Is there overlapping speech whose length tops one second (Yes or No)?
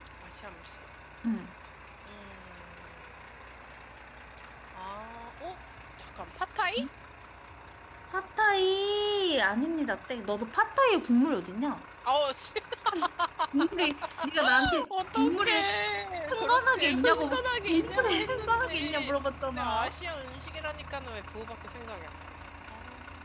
Yes